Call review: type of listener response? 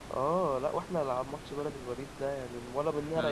listening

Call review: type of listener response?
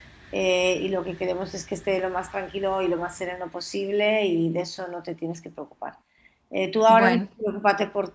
listening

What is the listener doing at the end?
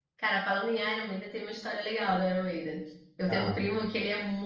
listening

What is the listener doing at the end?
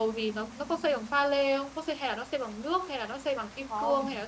taking over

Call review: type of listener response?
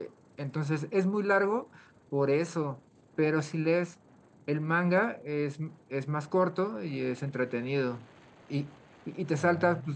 listening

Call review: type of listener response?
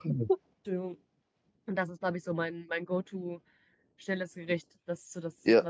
taking over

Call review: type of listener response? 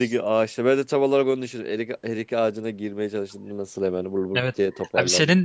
taking over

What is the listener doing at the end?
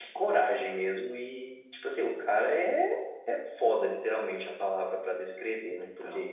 listening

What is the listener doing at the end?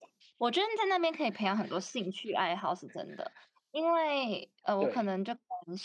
listening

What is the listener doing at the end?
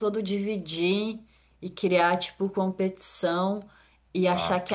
listening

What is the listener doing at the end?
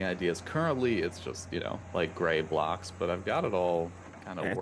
taking over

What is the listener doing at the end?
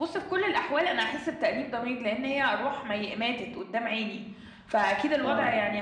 listening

